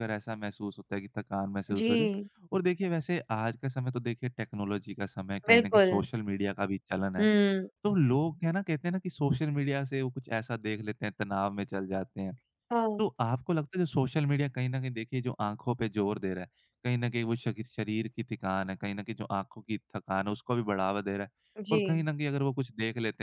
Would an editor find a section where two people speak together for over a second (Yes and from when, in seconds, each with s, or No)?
No